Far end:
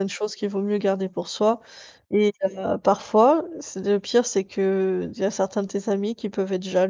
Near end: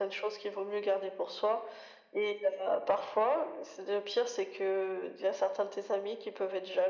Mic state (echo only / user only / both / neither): echo only